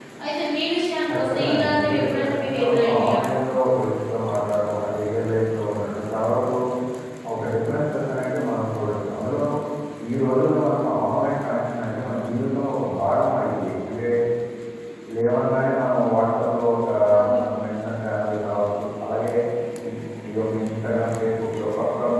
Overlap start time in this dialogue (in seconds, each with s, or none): 1.1 s